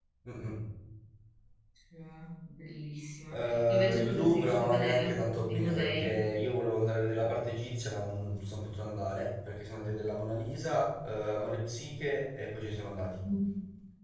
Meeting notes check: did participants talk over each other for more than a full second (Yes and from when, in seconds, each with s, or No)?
Yes, from 3.3 s